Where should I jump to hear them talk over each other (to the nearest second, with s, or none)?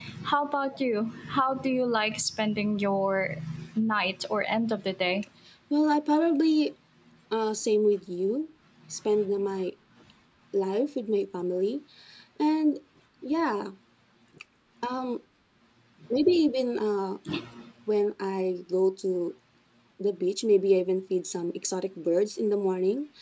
none